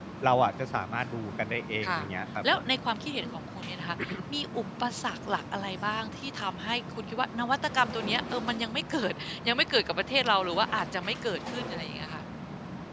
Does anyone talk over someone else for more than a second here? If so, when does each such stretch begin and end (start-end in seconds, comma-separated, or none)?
none